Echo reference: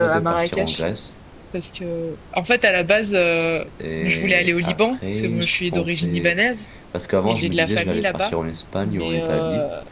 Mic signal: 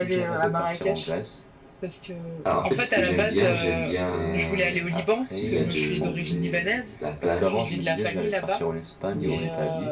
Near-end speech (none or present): present